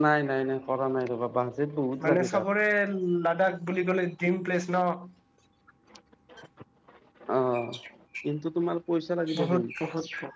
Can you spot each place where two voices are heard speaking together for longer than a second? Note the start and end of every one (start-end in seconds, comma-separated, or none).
none